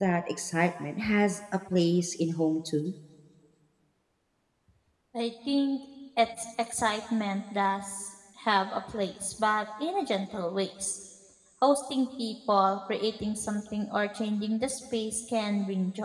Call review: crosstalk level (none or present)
none